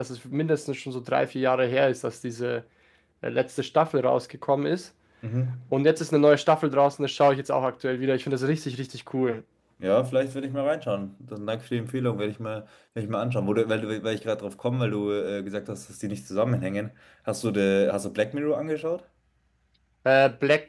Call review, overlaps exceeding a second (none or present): none